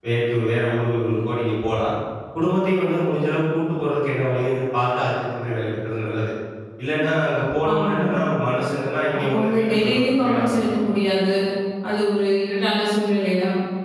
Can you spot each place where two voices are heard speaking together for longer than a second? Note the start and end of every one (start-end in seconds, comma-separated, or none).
9.2-10.8